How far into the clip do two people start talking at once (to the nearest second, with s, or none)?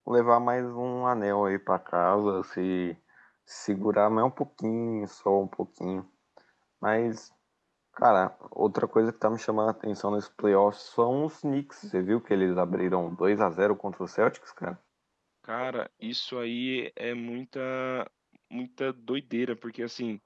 none